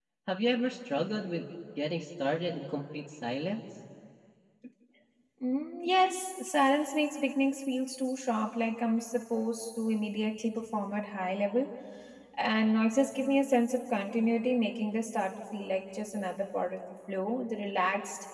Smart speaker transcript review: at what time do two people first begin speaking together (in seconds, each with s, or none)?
none